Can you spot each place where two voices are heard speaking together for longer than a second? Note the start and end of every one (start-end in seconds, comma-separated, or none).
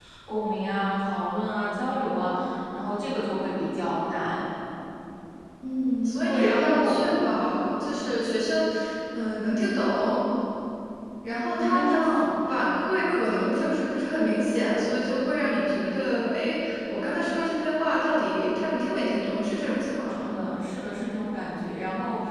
6.2-7.5